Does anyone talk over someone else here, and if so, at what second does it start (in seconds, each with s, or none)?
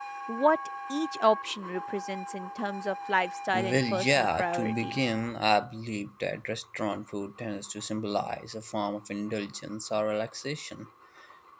3.5 s